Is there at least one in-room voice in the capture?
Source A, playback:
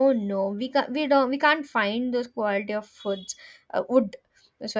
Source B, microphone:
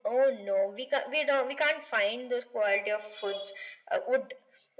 No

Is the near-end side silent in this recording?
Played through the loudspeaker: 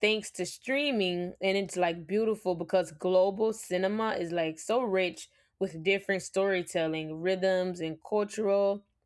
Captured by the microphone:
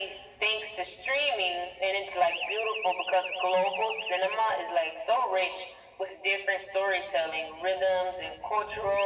Yes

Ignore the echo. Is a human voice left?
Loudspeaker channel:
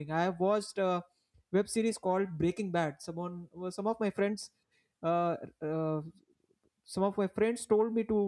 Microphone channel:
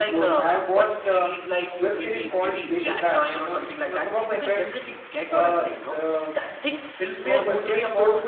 Yes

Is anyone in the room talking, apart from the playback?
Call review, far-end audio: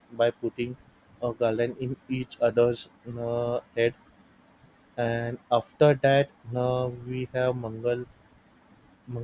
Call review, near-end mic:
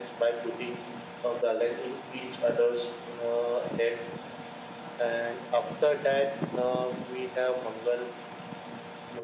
No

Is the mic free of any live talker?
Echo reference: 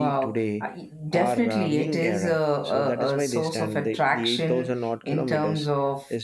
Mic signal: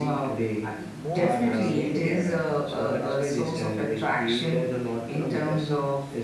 No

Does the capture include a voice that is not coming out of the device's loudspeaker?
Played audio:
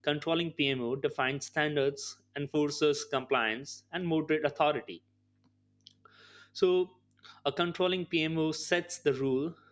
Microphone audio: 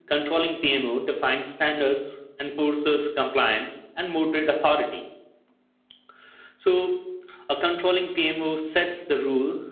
No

